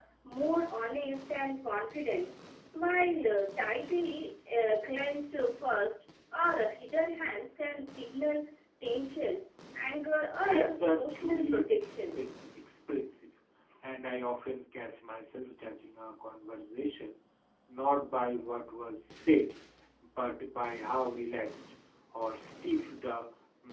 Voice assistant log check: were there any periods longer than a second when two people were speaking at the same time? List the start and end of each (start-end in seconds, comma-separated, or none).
10.4-12.2